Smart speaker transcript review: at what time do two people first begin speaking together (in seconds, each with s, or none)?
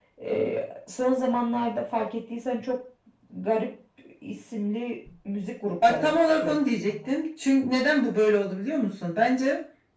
5.8 s